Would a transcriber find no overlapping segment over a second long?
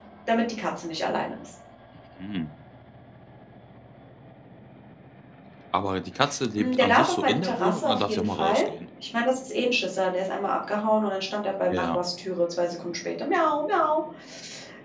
No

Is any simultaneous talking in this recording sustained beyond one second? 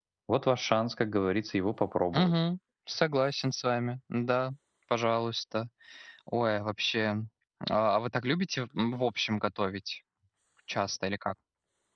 No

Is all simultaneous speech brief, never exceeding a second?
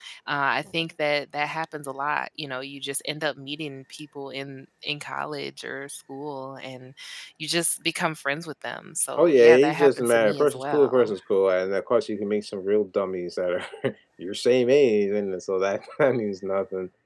No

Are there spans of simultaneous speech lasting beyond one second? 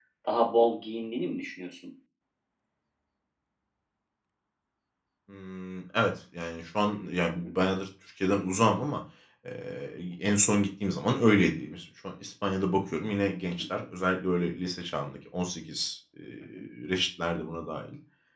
No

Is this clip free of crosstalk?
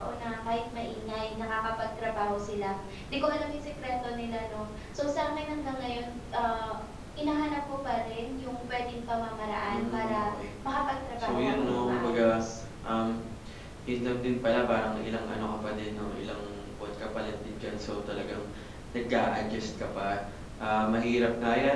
No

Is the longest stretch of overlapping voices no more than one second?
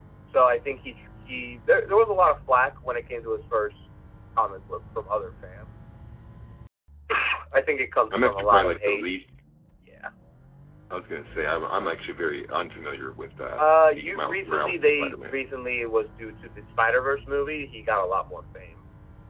No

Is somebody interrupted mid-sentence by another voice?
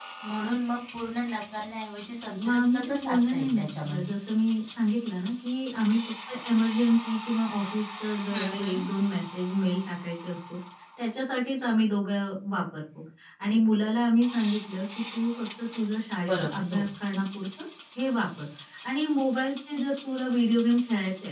Yes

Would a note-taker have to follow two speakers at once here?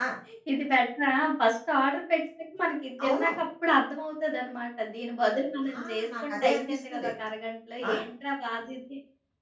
Yes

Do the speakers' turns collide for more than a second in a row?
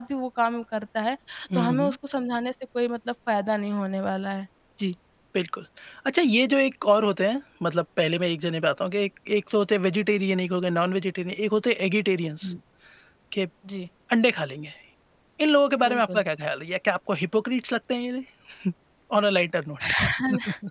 No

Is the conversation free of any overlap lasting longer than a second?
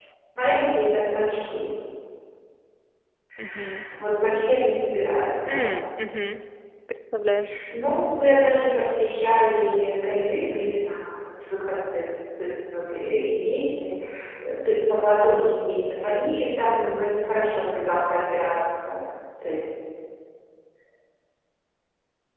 Yes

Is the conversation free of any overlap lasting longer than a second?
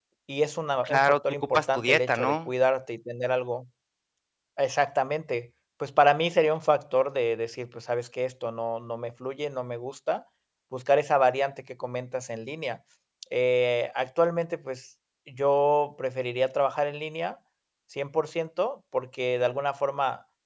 No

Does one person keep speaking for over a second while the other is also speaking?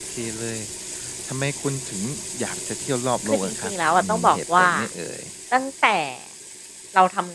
Yes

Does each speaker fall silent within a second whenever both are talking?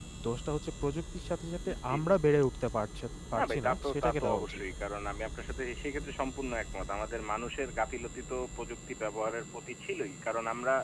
No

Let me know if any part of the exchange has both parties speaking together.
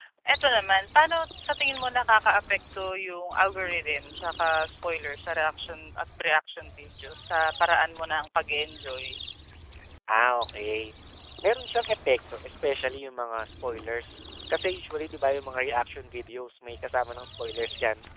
No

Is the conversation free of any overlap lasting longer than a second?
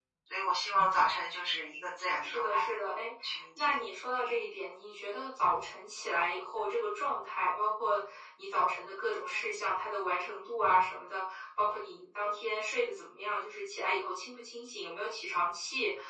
Yes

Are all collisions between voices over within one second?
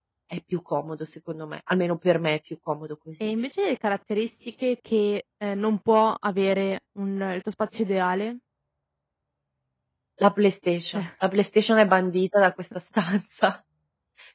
Yes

